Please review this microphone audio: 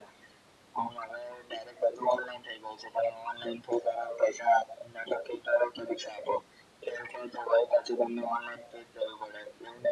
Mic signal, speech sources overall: echo only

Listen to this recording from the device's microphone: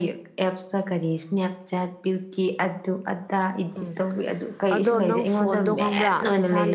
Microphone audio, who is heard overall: both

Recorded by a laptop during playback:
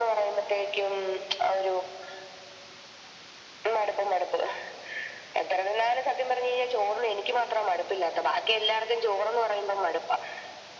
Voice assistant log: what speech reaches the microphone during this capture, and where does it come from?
echo only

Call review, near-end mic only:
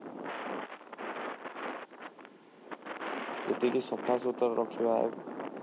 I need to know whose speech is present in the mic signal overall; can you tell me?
user only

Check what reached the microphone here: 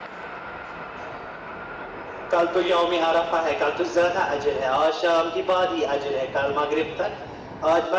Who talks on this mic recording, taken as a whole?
echo only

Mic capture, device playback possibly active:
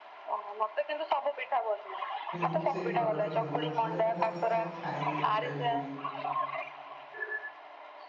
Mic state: both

